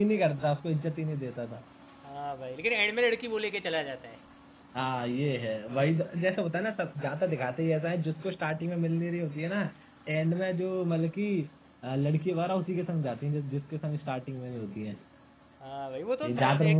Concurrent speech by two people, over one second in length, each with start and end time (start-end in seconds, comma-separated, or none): none